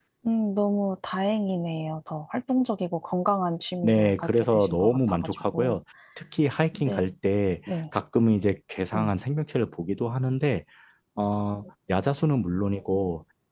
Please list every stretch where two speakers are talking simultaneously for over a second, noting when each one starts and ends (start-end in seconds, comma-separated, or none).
3.8-5.8